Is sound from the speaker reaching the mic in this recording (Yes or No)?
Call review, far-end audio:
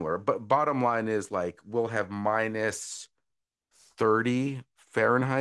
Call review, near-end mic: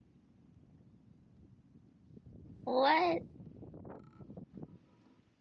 No